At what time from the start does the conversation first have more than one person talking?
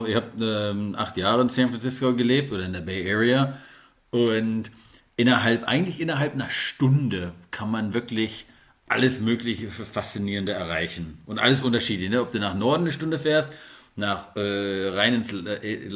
none

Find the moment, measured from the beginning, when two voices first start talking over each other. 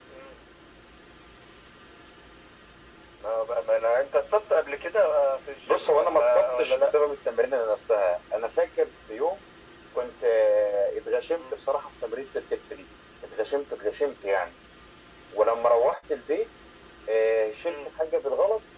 5.7 s

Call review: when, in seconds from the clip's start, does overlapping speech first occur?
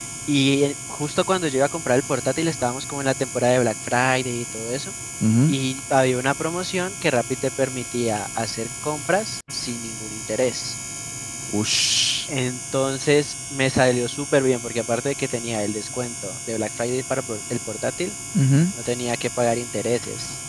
none

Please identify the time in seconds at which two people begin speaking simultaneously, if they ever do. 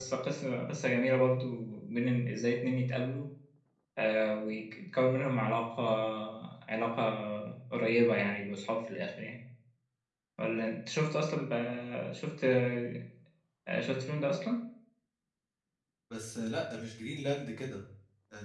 none

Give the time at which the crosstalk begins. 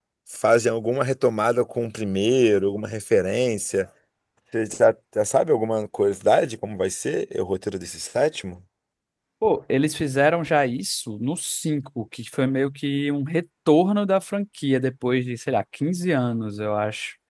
none

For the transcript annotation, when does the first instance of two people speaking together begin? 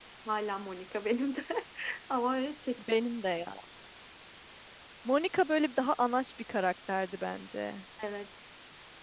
none

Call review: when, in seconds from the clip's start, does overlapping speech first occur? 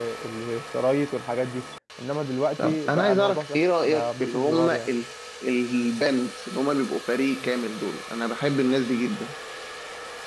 2.6 s

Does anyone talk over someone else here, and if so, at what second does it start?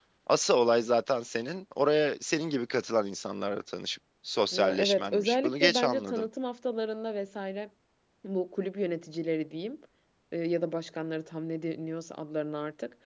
4.5 s

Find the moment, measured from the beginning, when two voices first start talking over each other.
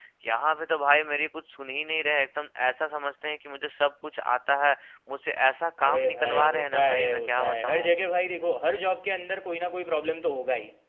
5.8 s

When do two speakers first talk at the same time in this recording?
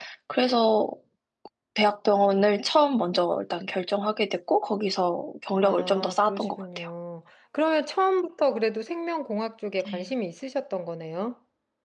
5.6 s

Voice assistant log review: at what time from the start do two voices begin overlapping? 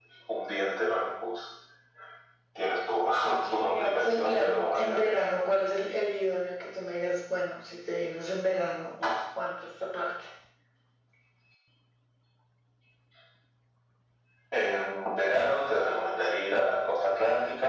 3.5 s

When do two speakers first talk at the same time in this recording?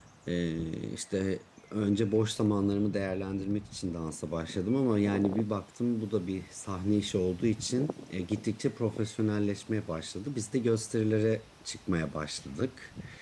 none

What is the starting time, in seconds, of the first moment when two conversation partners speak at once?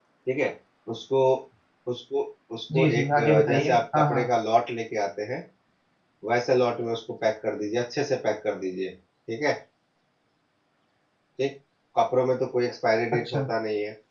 2.7 s

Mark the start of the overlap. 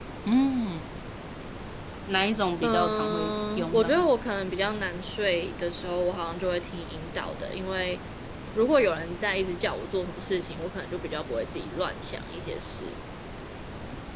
2.6 s

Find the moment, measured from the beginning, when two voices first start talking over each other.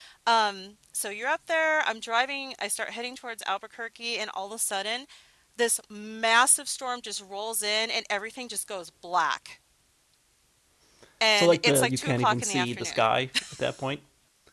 11.3 s

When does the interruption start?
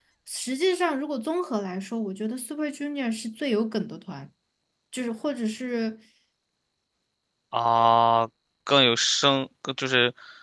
none

